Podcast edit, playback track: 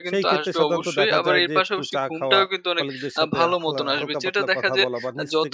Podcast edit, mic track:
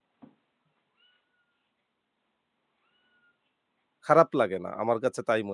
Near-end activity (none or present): present